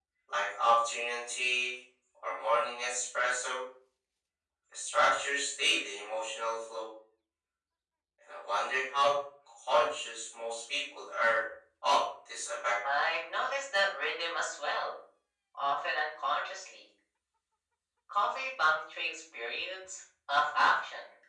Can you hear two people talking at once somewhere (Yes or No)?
No